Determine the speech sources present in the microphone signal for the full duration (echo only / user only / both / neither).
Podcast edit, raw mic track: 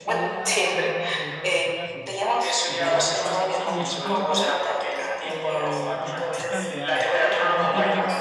both